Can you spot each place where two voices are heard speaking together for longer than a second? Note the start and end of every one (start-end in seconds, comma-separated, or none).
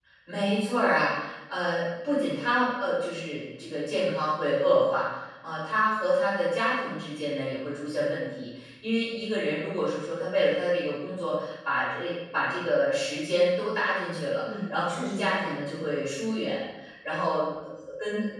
14.5-15.9